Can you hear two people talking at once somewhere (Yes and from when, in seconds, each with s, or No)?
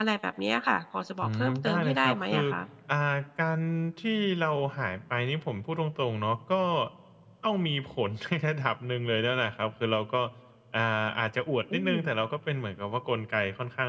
Yes, from 1.2 s